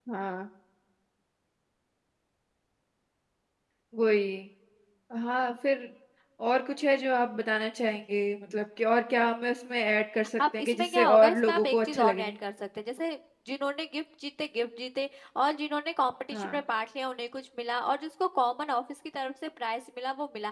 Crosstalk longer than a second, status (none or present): present